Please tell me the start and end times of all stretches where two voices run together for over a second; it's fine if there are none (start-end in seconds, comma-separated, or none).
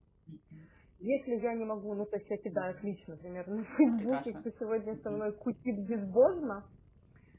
none